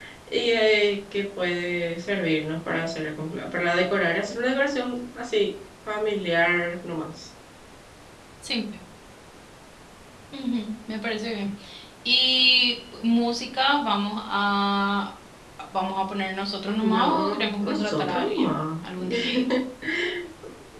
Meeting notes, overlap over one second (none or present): present